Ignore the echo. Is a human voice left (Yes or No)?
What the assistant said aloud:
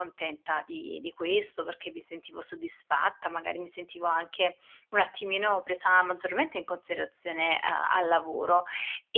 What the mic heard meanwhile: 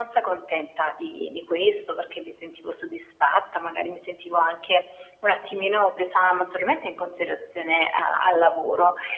No